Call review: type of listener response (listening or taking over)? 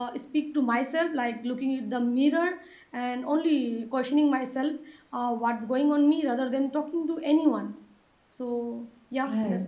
taking over